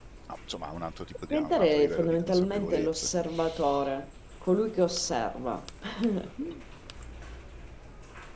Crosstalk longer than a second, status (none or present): present